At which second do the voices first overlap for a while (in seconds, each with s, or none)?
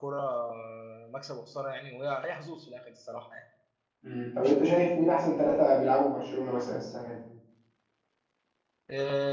none